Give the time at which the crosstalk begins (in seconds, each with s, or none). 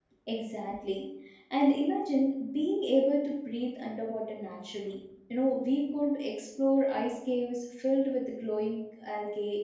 none